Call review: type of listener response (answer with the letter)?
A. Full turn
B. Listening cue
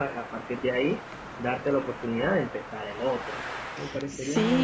A